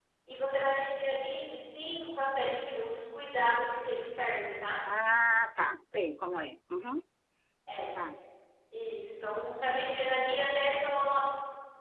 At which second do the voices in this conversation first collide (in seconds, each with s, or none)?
none